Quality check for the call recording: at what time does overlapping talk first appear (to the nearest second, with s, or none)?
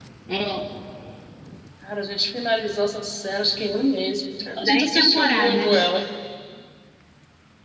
5 s